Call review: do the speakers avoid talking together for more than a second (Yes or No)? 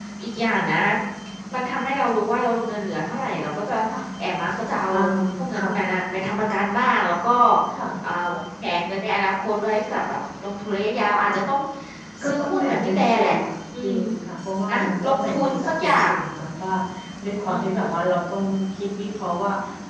No